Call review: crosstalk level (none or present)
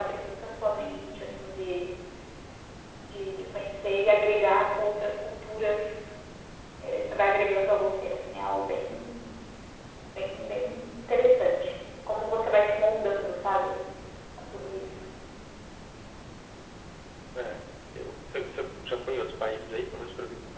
none